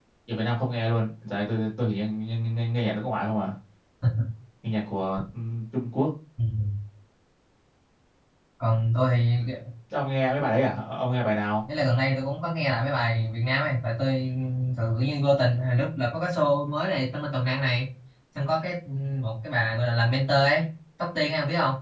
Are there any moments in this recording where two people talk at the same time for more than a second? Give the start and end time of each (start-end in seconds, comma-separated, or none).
none